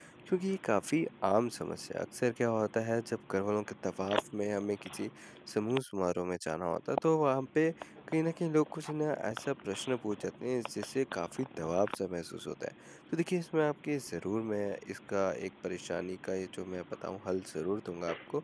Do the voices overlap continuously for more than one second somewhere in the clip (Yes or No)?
No